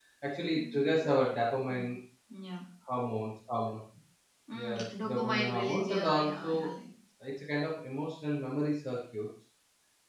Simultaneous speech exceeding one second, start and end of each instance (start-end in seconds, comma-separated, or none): 4.6-6.5